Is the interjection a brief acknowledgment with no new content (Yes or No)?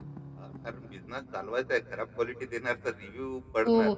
No